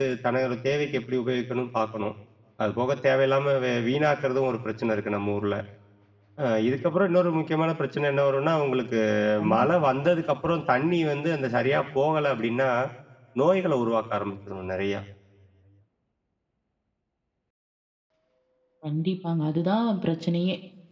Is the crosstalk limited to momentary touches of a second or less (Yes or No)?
Yes